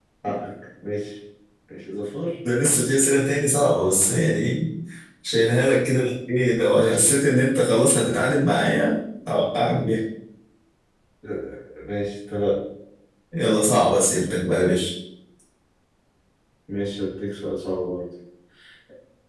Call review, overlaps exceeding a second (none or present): none